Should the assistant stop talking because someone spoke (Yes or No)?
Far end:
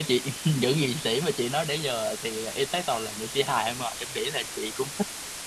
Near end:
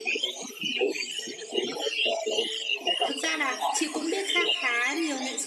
Yes